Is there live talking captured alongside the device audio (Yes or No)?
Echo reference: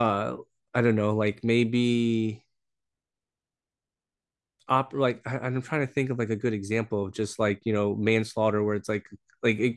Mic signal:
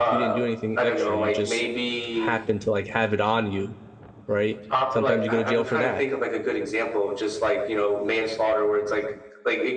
Yes